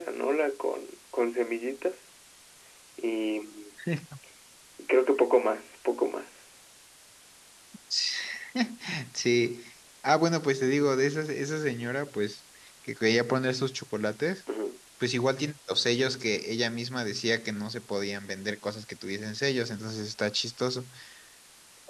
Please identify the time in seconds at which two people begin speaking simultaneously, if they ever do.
none

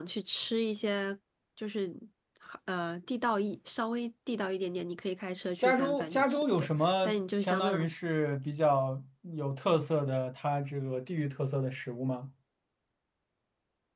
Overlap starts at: 5.6 s

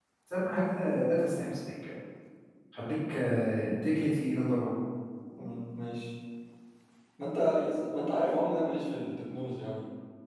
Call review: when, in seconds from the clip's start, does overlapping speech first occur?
none

